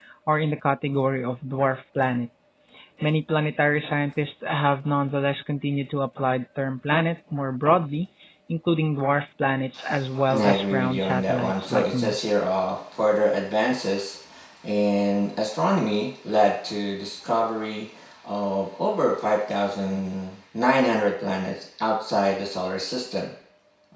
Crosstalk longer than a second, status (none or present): present